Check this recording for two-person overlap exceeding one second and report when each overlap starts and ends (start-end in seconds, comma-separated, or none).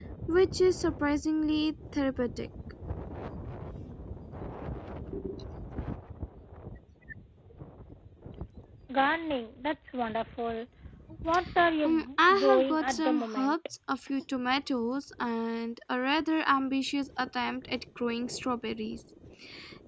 11.8-13.6